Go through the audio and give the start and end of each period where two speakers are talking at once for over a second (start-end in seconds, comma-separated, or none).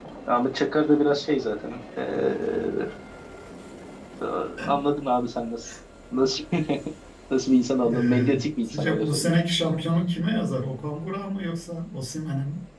7.9-9.3